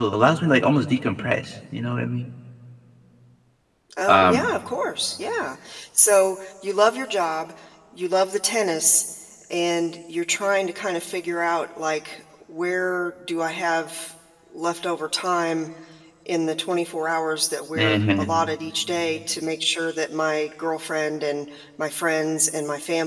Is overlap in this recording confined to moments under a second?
Yes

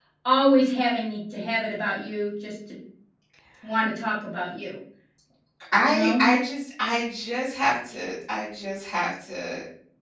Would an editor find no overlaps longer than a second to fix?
Yes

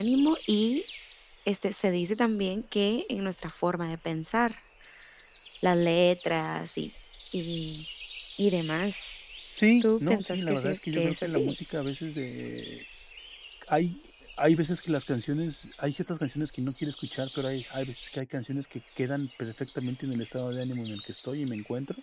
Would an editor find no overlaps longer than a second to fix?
No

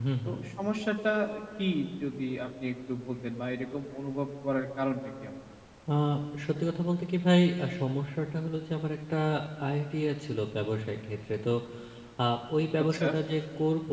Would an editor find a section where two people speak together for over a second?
No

